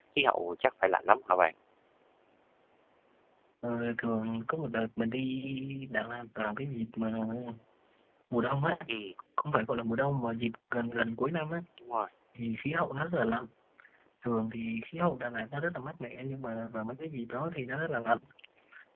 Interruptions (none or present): none